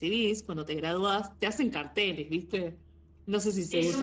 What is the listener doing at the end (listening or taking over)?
taking over